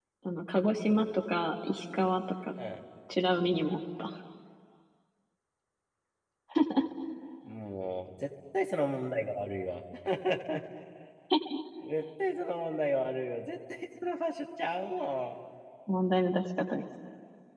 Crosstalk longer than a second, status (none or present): none